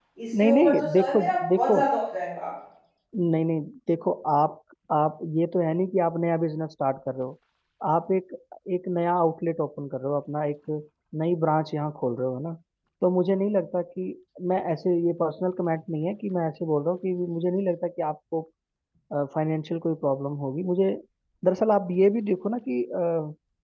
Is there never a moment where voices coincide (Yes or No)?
No